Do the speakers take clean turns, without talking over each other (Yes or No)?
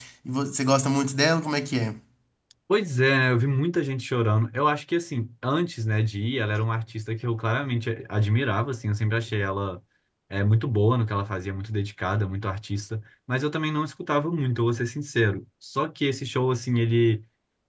Yes